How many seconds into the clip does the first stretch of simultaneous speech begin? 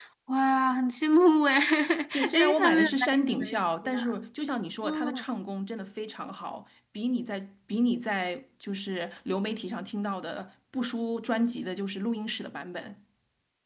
2 s

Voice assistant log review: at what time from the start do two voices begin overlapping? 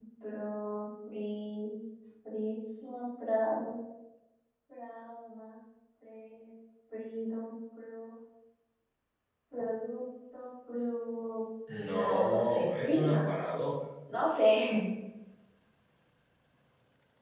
12 s

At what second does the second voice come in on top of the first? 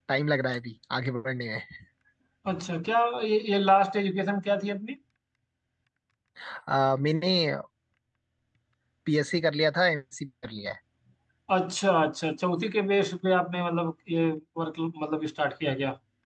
none

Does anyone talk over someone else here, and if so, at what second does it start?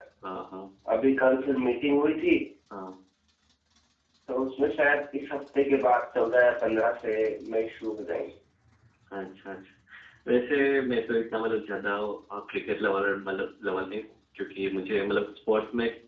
none

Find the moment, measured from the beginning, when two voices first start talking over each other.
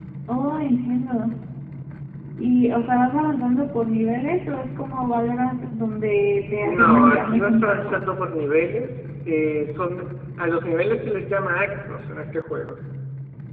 7 s

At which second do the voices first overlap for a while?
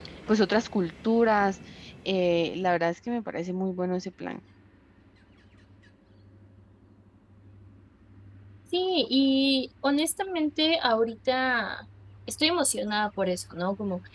none

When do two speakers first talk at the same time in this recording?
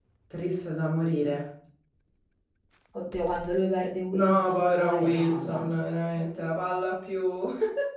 4 s

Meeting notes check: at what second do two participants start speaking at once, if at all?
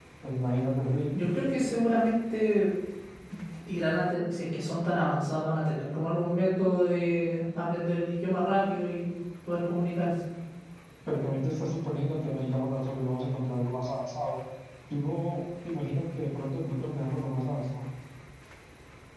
none

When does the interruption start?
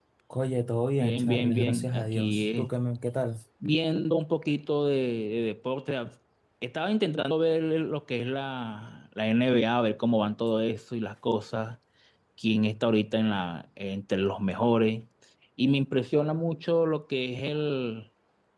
1 s

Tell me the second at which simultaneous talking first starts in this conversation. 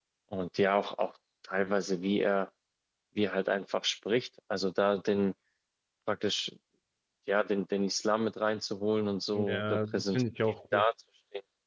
9 s

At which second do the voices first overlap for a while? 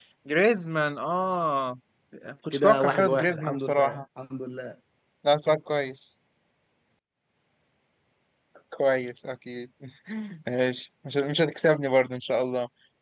3 s

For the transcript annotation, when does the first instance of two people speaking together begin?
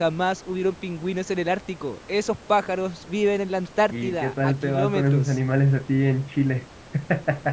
4 s

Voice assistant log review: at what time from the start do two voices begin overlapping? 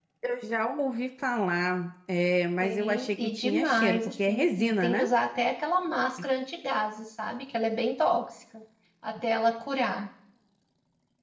3 s

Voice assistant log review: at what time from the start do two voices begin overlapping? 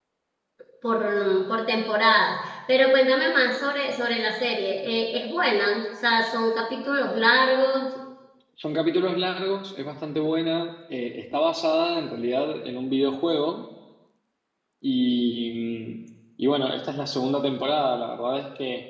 none

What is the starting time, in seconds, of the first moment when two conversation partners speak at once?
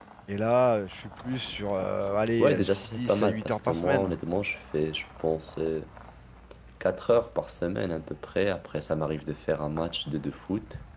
2 s

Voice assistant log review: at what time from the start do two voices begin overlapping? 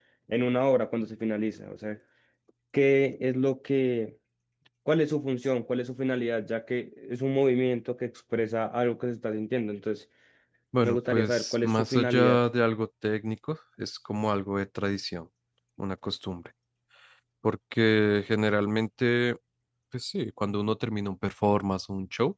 11 s

